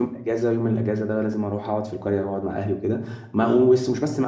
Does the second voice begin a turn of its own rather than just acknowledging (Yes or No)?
No